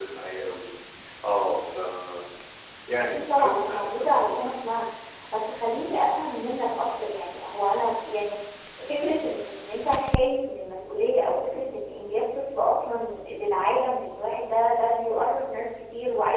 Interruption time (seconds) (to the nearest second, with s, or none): 3 s